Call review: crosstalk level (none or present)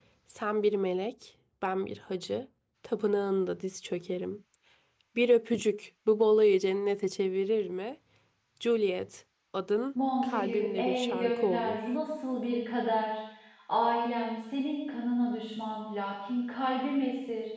present